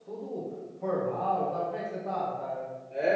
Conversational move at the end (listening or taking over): taking over